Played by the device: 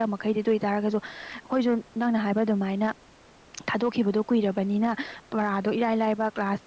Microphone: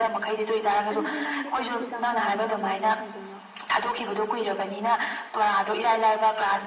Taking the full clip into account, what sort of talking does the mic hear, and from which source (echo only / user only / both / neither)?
both